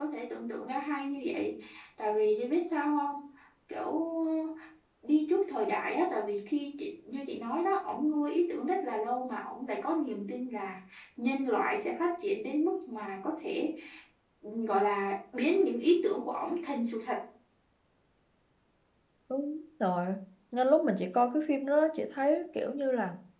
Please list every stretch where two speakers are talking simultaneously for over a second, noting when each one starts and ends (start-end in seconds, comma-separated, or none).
none